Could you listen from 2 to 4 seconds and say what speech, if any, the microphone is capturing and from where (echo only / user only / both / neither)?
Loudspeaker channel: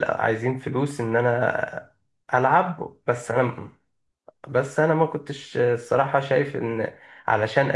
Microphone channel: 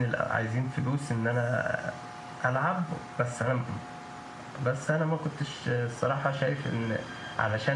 echo only